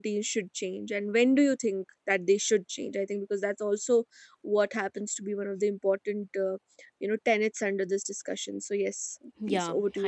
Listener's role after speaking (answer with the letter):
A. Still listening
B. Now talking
B